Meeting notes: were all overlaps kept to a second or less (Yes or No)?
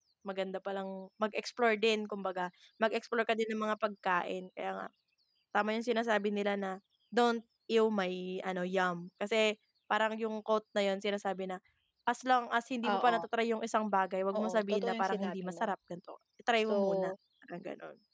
No